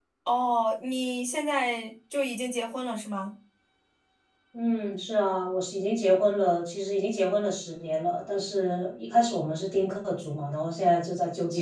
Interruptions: none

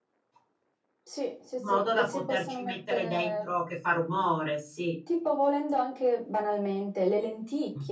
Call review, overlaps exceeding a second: present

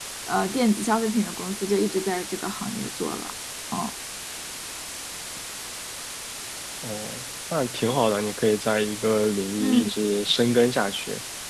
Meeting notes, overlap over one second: none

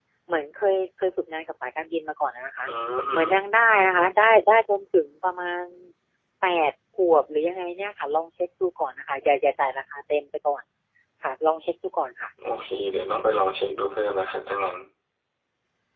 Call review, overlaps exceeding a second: none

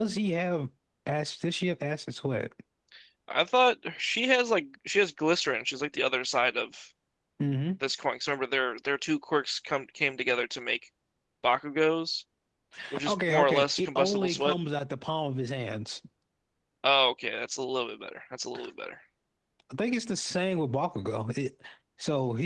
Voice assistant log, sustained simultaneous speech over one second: present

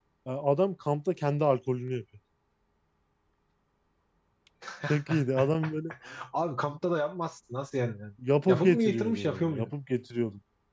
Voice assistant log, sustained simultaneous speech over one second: present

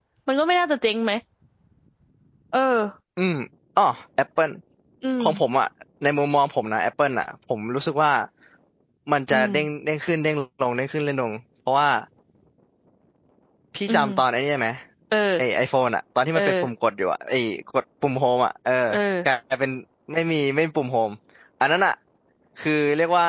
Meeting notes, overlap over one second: none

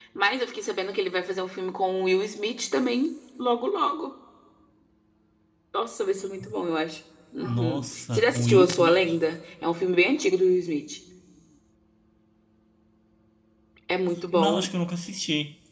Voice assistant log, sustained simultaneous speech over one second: present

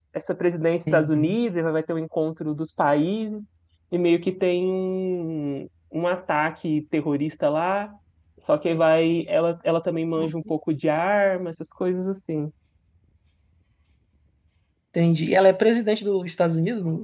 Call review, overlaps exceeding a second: none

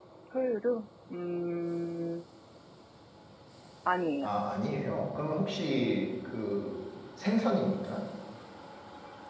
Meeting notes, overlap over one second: none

